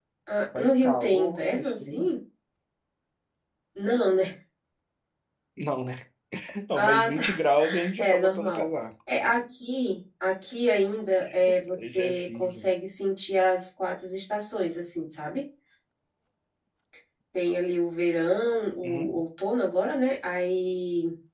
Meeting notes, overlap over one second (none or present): present